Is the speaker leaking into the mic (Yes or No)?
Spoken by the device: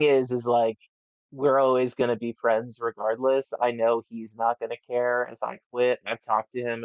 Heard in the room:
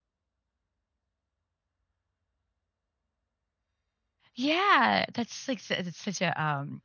No